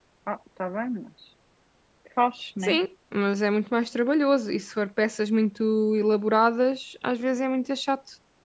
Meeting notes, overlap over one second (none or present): none